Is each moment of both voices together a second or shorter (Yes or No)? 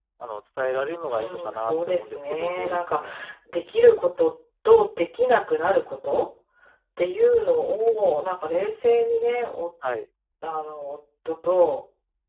No